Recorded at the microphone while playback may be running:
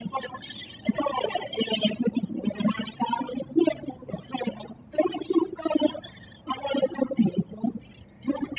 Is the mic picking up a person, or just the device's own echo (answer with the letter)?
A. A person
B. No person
B